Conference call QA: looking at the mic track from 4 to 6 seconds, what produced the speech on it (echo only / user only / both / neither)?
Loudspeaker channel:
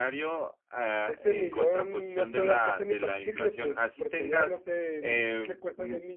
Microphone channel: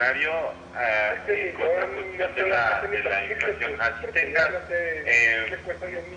echo only